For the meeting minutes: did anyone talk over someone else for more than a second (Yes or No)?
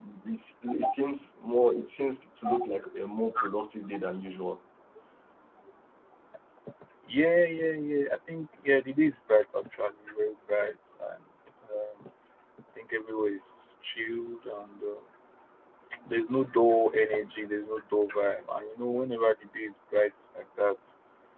No